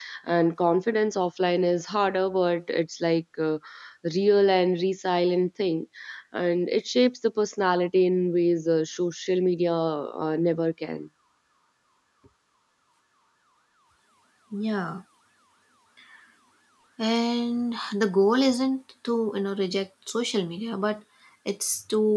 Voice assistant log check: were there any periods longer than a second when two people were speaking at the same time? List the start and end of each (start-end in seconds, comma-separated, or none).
none